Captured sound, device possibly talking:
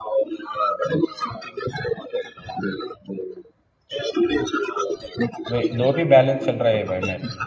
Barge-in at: 6 s

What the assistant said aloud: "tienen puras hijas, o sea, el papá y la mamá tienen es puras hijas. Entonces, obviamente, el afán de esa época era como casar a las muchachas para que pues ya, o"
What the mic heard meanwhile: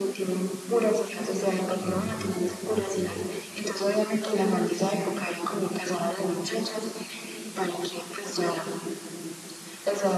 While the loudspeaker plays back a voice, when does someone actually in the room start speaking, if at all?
2 s

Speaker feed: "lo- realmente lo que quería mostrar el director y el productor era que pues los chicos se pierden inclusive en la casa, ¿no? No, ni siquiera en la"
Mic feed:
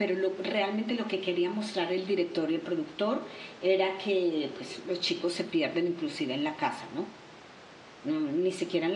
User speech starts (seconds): none

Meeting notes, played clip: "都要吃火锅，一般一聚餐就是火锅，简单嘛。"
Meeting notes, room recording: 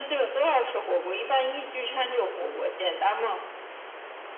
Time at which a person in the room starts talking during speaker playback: none

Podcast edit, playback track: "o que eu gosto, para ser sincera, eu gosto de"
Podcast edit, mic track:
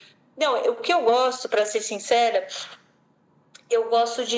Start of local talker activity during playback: none

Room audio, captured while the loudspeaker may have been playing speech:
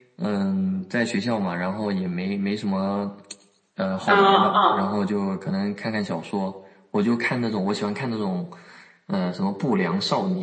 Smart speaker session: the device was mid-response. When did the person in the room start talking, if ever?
4 s

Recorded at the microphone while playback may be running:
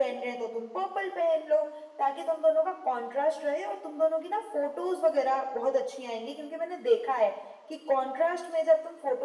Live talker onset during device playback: none

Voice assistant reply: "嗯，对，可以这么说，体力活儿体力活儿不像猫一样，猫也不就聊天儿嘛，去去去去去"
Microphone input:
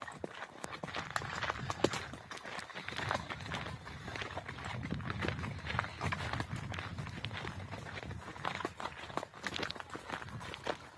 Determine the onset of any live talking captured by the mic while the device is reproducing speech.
none

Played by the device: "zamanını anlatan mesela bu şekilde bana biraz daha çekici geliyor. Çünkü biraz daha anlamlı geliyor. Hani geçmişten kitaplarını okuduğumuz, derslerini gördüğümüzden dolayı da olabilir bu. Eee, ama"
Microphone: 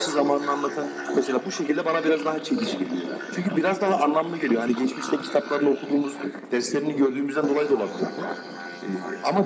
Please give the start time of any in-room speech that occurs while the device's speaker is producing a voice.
none

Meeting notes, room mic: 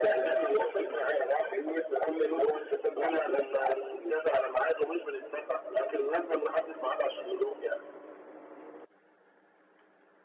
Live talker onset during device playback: none

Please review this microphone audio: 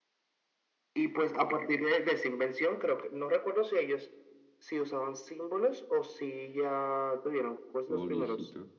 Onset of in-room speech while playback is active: 8 s

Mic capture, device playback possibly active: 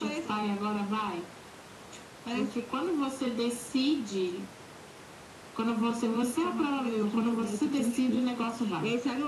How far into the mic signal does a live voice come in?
none

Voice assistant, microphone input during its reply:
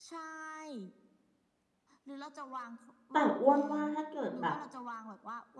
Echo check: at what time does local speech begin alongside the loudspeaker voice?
3 s

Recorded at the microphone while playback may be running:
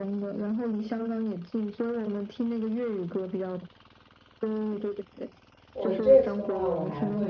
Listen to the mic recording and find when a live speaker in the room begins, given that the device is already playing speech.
6 s

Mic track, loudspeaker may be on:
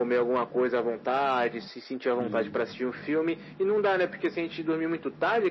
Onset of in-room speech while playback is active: 2 s

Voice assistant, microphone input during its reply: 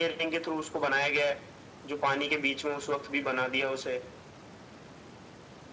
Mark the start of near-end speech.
none

